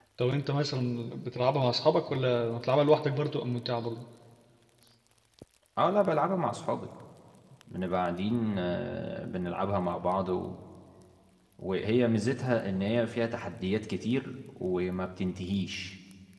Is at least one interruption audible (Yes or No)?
No